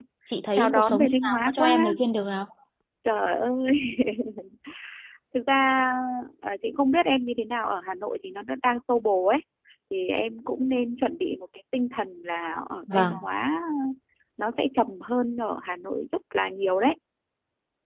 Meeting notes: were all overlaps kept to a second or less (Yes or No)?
No